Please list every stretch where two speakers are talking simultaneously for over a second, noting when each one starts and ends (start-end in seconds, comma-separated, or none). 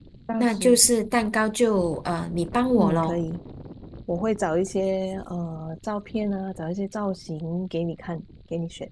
none